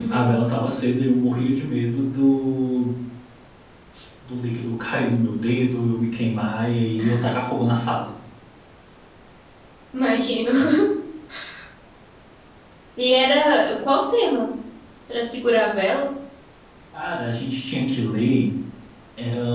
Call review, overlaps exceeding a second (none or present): none